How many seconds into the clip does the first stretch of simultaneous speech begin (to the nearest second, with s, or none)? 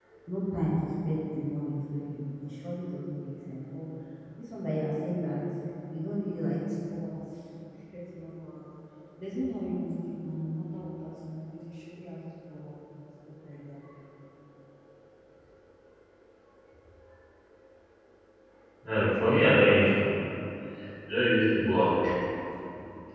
none